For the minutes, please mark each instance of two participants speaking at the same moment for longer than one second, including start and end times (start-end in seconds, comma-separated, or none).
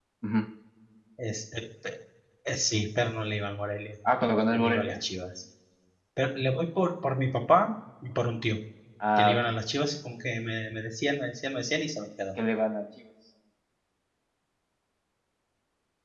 none